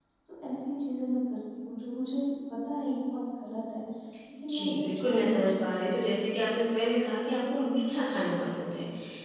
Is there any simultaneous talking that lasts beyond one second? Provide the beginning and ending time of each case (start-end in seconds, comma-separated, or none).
4.5-5.9